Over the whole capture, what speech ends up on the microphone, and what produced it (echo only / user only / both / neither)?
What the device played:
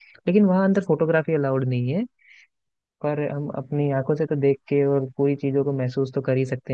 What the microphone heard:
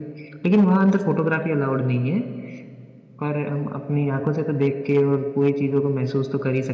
echo only